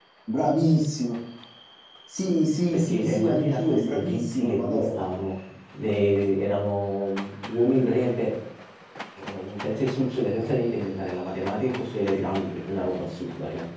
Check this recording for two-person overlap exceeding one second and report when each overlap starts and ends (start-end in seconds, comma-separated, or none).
2.7-4.8